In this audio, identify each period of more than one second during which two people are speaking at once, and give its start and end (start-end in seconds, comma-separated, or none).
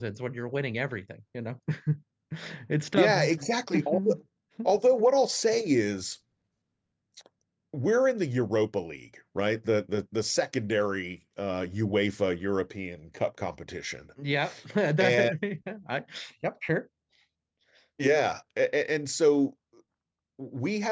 none